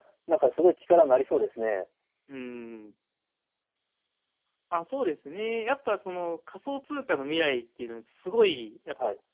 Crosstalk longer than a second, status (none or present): none